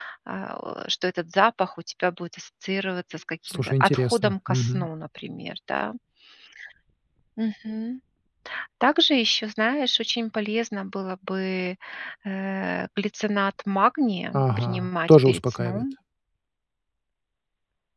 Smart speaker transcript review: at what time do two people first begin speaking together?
3.5 s

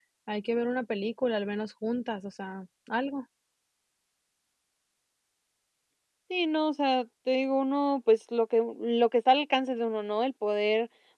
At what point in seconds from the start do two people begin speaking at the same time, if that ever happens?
none

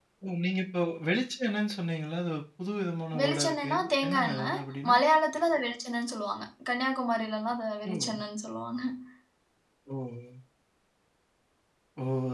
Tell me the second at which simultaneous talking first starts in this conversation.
3.2 s

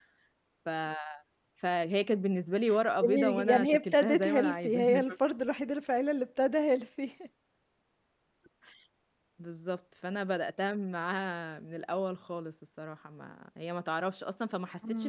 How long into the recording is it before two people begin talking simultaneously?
3.0 s

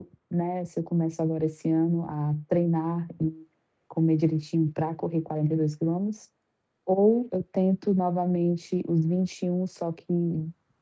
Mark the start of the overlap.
none

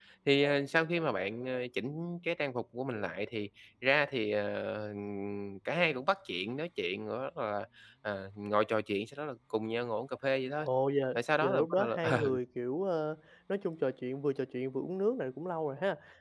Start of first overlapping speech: 11.2 s

